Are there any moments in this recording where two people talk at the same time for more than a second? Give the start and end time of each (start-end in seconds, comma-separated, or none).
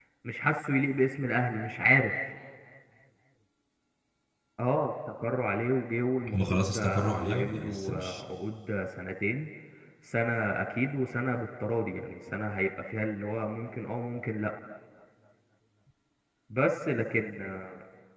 6.3-8.2